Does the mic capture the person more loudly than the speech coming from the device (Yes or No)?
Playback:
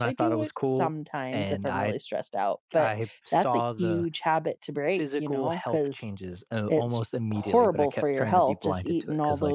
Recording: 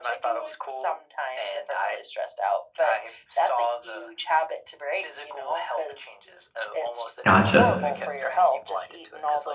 Yes